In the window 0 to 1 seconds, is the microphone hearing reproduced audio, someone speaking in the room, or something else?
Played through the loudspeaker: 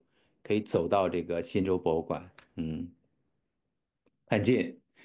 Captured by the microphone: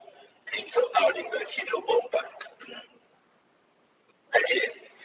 echo only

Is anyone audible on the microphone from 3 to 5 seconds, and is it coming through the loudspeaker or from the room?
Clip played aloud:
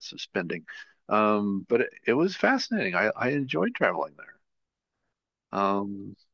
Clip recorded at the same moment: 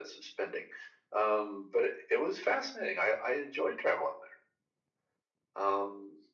echo only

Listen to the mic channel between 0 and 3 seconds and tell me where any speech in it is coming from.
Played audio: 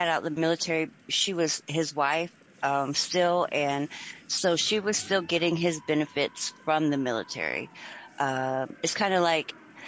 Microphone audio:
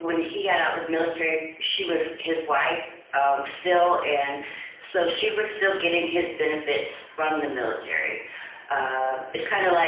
echo only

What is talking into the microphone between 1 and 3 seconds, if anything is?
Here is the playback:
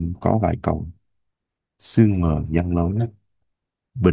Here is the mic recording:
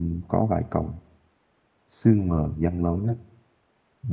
echo only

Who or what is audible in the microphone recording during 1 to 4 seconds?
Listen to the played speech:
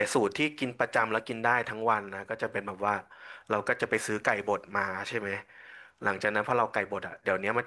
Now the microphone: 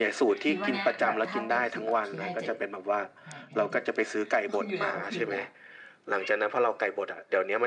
both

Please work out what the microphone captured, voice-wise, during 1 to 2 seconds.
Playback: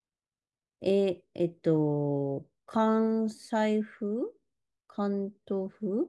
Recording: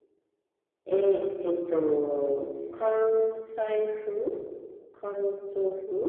both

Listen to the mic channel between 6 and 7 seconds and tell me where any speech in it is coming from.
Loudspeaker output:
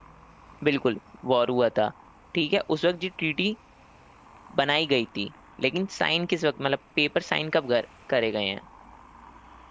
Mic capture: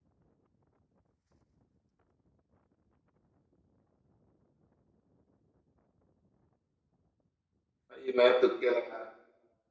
neither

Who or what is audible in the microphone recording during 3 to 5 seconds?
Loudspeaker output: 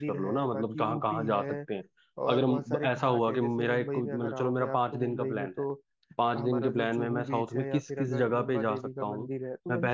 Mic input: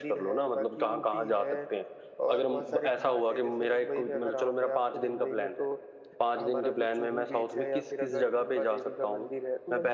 echo only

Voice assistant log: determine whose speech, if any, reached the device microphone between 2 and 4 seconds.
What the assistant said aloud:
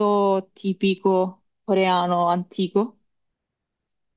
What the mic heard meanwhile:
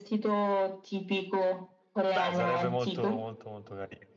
both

